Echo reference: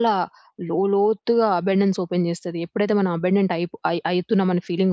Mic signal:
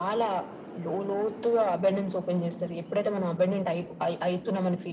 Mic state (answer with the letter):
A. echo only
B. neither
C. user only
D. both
A